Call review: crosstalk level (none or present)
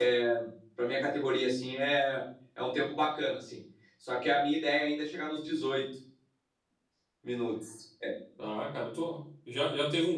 none